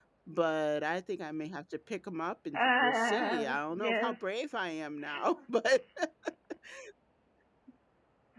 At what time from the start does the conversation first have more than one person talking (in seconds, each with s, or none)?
2.5 s